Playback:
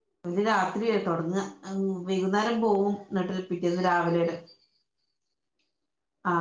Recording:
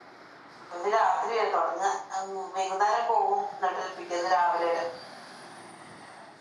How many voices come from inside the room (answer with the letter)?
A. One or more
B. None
B